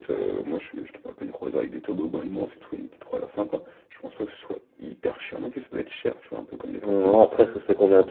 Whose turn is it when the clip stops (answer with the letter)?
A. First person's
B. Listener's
B